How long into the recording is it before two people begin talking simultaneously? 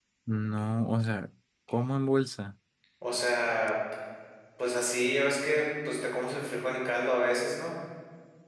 none

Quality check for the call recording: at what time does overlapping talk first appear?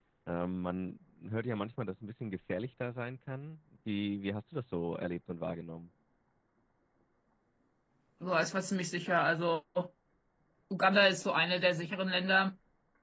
none

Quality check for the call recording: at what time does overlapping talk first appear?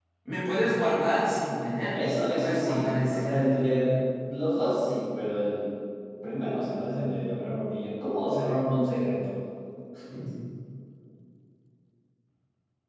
1.9 s

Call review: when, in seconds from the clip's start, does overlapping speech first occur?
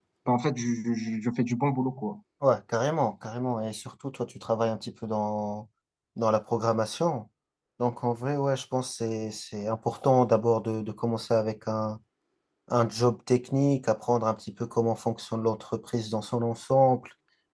none

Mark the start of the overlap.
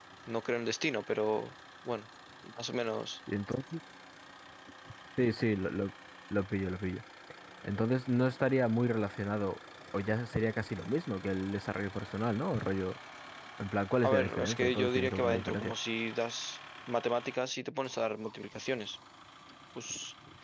14.0 s

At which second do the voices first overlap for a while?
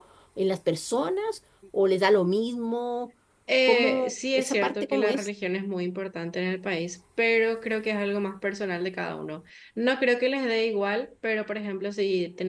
3.7 s

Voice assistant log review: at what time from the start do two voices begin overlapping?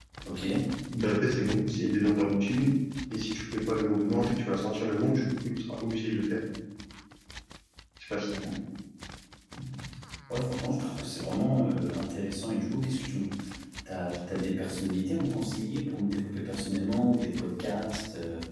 none

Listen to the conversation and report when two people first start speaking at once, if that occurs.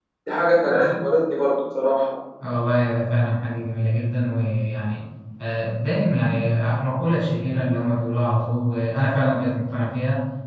none

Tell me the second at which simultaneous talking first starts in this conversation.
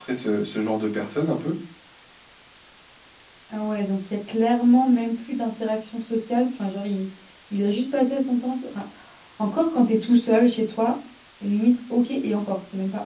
none

